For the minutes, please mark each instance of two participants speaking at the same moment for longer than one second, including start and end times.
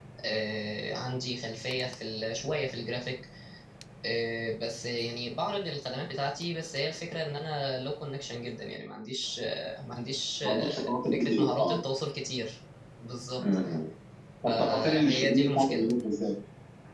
10.4-11.8, 14.5-15.9

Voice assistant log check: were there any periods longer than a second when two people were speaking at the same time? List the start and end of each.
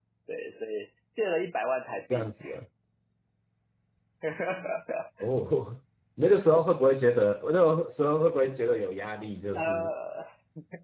none

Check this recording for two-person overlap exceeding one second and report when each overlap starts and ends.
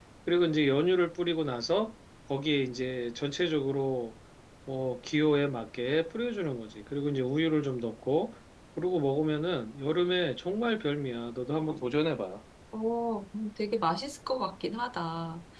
none

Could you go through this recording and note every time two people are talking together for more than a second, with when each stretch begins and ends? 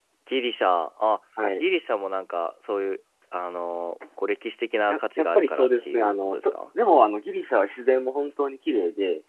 4.9-6.5

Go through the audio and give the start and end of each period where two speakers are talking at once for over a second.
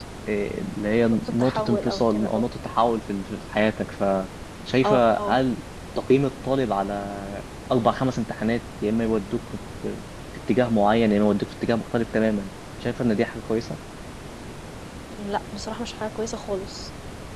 1.1-2.4

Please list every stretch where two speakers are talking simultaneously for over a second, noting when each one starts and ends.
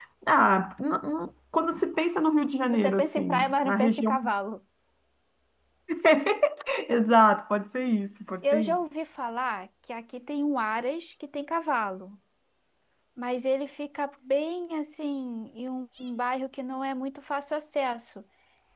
2.7-4.2

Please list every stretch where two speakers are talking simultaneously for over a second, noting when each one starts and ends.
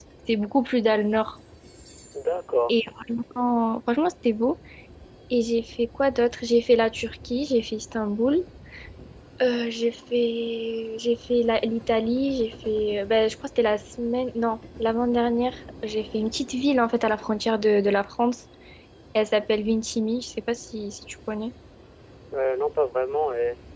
none

